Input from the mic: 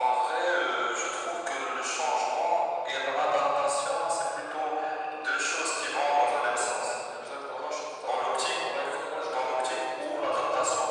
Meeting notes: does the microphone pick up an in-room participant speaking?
No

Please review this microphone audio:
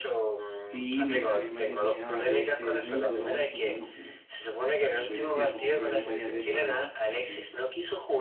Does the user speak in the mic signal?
Yes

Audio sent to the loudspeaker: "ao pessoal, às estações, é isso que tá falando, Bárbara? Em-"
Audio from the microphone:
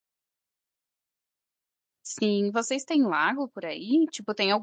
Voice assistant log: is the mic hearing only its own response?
No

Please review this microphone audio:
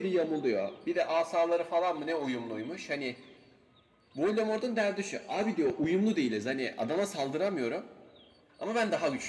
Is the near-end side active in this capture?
No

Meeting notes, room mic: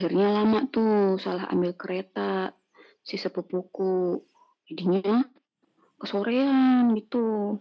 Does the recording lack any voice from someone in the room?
Yes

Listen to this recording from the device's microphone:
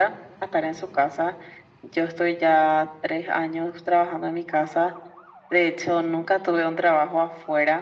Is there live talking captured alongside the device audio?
No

